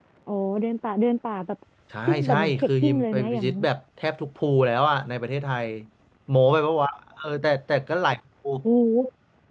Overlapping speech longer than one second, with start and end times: 2.1-3.6

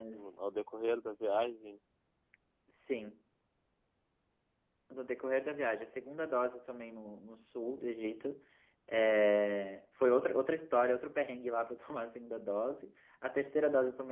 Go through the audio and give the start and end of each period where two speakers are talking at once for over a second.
none

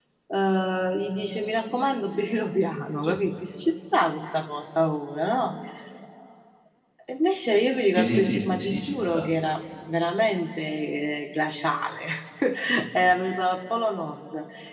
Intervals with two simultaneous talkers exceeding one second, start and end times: 8.0-9.3

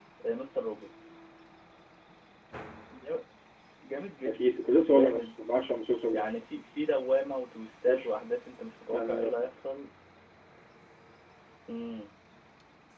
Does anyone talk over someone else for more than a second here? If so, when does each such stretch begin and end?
none

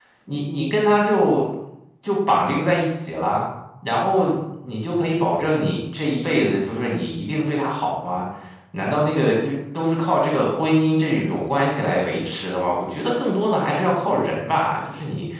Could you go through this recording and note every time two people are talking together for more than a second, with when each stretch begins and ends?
none

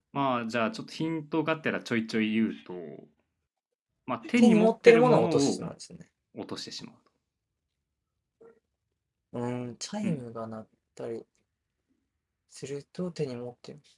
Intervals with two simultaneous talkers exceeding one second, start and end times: 4.4-5.6

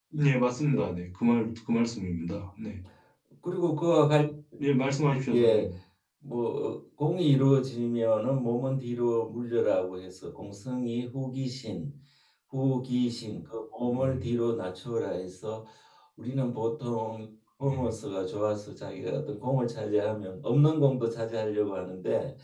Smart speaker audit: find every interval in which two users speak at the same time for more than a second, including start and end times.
none

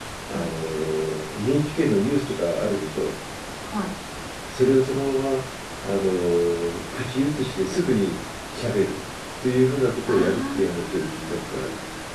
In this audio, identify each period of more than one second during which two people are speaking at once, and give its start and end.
10.1-11.4

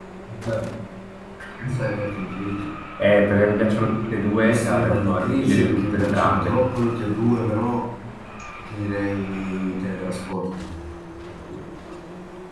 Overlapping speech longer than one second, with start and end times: 4.4-6.6

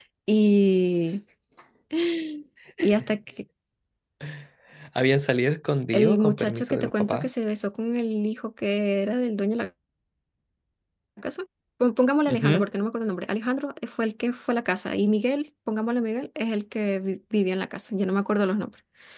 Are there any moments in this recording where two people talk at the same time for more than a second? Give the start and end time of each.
5.9-7.3

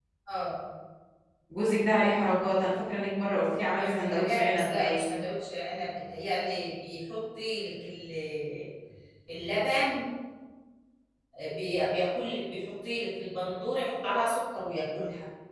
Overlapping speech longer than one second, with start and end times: 3.6-5.2

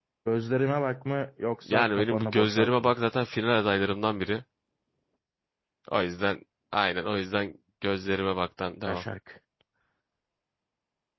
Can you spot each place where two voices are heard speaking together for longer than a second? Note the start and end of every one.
1.7-2.9

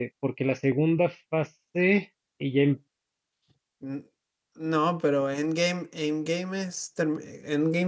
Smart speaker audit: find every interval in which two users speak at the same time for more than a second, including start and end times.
none

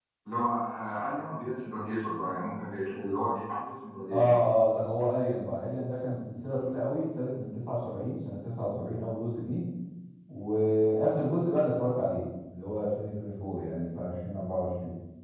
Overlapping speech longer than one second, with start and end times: none

